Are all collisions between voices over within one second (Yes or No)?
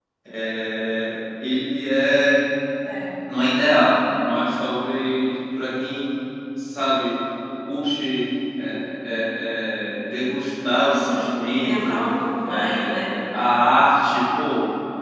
No